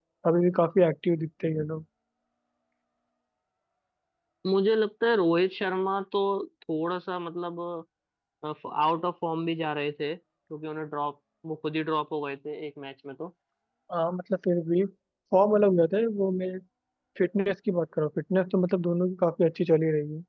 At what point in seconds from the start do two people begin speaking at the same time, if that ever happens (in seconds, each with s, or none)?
none